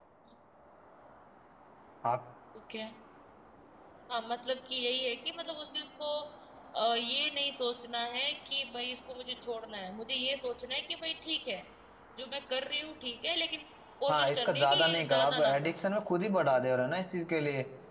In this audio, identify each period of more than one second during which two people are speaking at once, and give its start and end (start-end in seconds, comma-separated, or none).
14.1-15.9